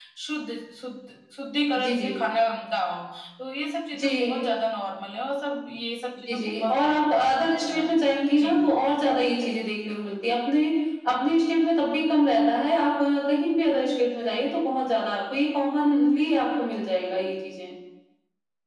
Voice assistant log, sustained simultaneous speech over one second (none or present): present